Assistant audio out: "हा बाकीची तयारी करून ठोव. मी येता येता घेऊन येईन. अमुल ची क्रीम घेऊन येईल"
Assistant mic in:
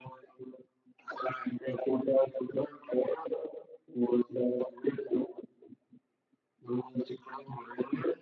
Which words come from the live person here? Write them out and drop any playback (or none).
none